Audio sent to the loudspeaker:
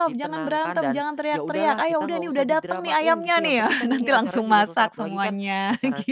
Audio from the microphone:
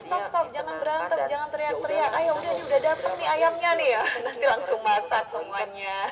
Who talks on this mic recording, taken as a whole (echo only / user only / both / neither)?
echo only